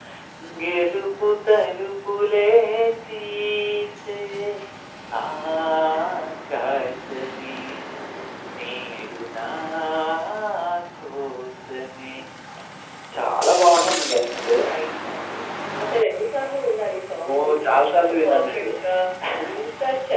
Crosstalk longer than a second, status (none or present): present